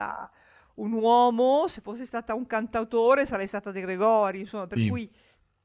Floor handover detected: No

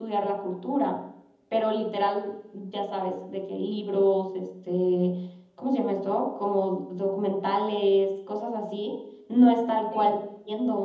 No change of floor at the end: Yes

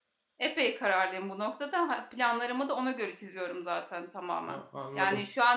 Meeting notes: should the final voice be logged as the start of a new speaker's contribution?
No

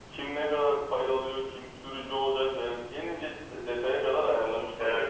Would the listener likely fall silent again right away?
No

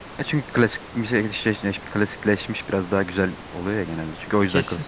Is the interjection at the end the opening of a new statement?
Yes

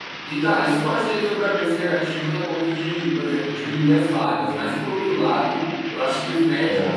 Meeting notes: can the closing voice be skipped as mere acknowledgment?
Yes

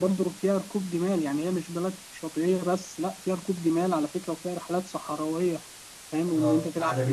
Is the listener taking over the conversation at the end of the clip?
Yes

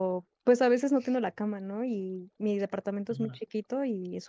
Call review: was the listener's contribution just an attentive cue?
Yes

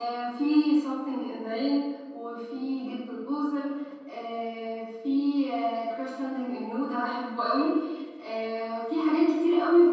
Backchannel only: Yes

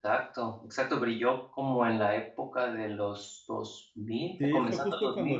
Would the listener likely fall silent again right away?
No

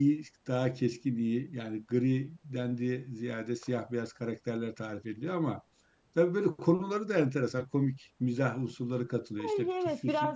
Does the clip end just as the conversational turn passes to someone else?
Yes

